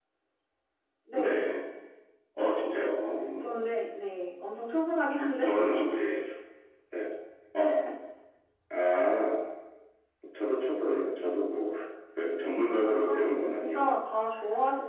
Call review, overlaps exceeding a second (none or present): present